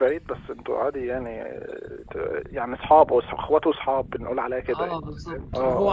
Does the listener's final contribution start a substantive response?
Yes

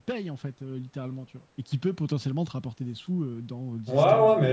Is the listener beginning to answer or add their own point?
Yes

